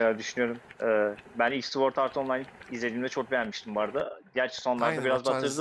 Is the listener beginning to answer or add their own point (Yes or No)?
Yes